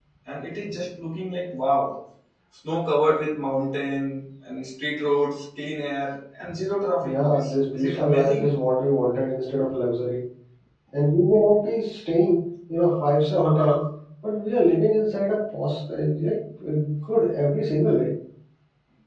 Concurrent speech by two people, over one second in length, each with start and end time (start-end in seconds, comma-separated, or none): 7.0-8.5